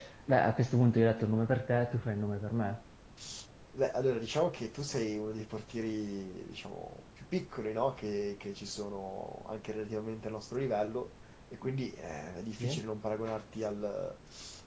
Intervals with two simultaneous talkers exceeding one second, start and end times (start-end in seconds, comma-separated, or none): none